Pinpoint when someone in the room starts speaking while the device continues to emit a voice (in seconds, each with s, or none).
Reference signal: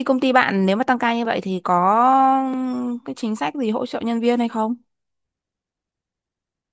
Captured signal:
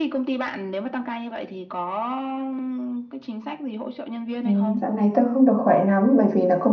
4.4 s